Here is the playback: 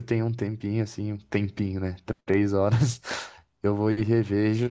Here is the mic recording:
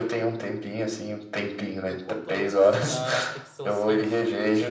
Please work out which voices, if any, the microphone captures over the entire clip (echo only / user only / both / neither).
both